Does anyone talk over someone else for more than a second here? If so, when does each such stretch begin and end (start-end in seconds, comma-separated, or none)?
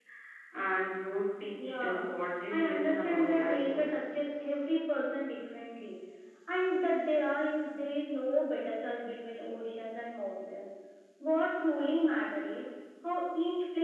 2.5-4.0